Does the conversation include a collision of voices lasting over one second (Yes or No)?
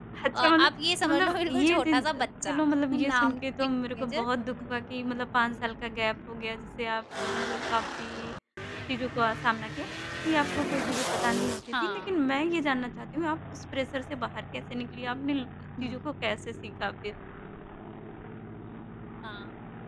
Yes